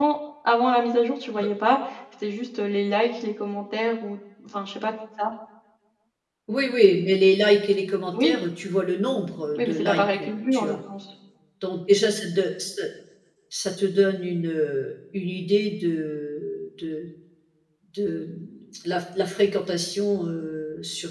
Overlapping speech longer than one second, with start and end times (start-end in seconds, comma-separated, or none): 9.6-10.8